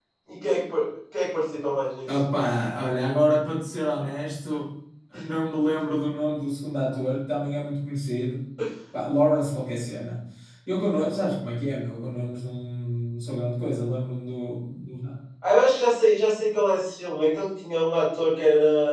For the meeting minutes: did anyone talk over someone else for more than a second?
No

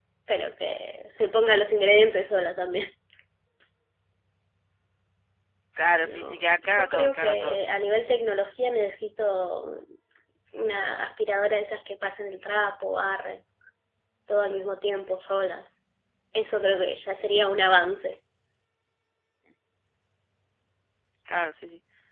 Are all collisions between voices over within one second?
No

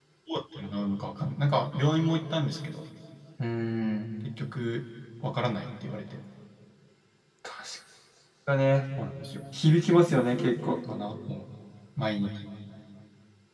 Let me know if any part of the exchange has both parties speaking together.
No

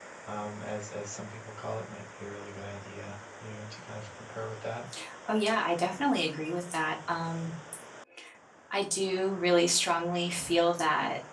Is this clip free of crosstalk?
Yes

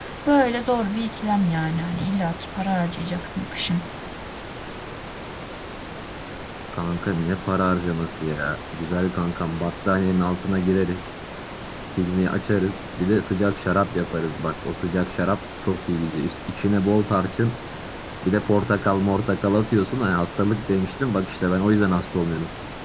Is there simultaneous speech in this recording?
No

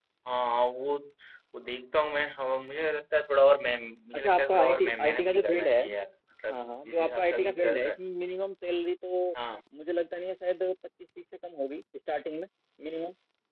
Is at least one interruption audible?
Yes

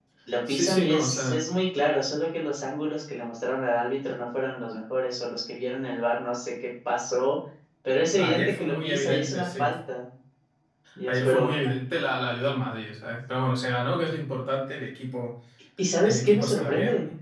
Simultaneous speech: Yes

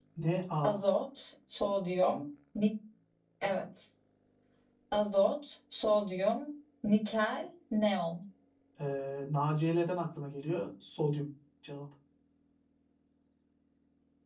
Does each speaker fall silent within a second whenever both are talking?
Yes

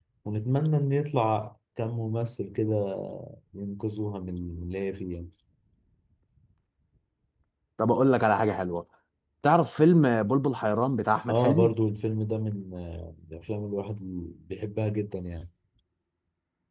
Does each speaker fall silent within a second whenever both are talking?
Yes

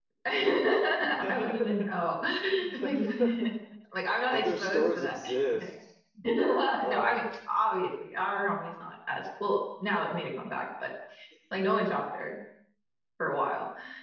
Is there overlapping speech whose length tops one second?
Yes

